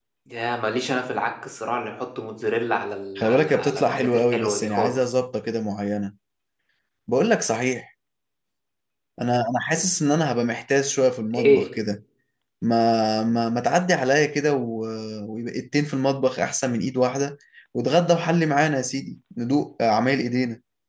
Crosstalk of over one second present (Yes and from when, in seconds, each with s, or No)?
Yes, from 3.2 s